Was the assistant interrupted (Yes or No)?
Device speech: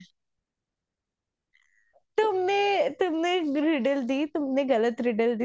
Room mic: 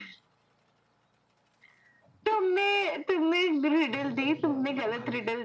Yes